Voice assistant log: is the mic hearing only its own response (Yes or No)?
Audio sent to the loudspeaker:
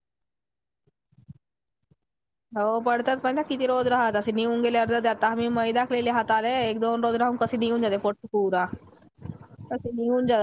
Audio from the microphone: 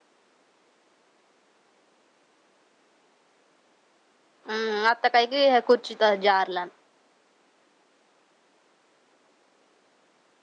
No